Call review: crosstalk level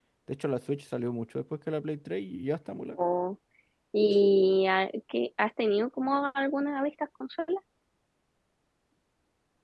none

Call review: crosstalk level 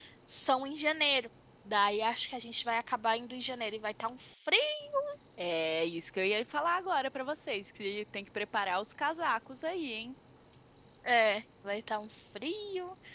none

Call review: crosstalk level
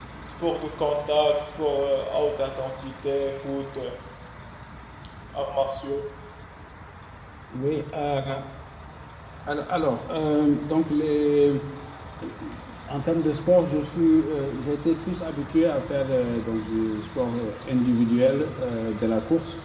none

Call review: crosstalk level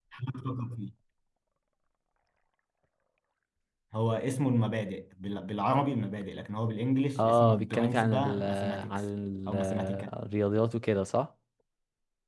present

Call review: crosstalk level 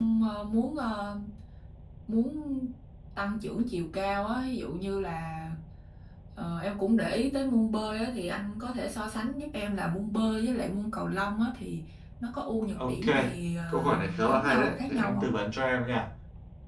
present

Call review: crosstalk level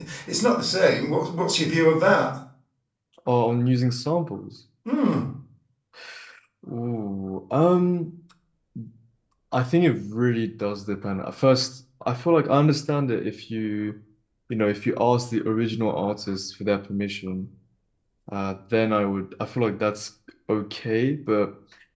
none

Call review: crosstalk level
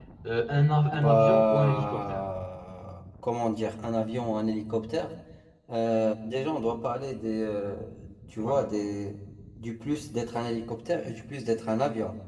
present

